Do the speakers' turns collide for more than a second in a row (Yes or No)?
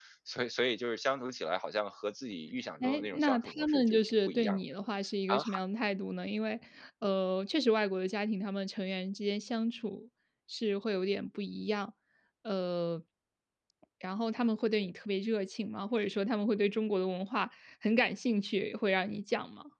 Yes